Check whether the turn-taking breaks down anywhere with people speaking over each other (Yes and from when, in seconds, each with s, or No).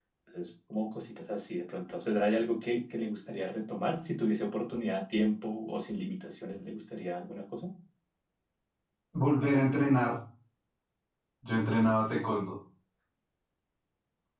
No